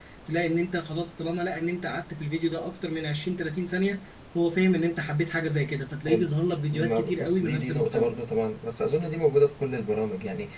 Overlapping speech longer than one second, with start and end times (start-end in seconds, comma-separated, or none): 6.7-8.2